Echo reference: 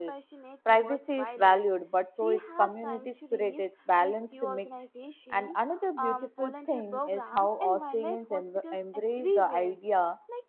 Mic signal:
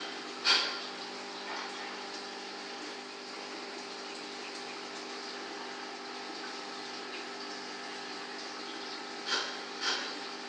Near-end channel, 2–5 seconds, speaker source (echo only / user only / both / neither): neither